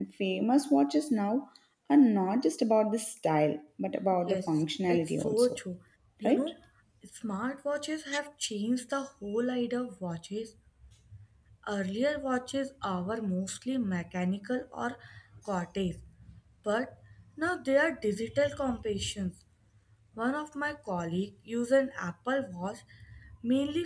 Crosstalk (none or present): present